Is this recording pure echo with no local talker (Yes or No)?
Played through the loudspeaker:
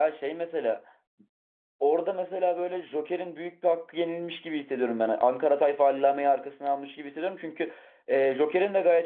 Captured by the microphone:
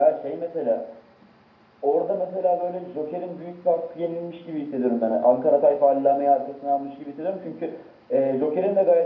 Yes